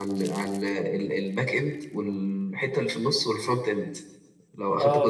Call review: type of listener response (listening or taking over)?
listening